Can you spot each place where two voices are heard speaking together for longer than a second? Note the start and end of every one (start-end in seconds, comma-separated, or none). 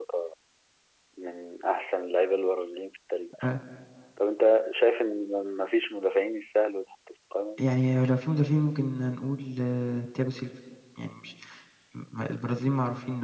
none